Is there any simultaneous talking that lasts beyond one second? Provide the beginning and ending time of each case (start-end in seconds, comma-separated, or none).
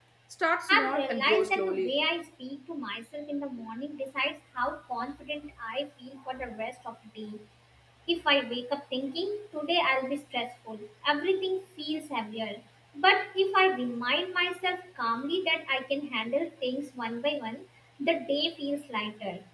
0.7-1.9